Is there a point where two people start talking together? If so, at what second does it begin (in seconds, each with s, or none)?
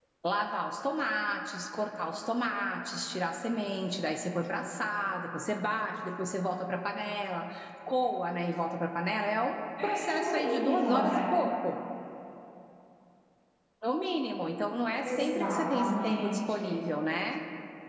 9.8 s